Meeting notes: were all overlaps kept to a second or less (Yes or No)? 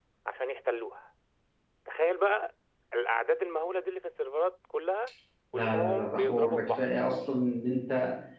No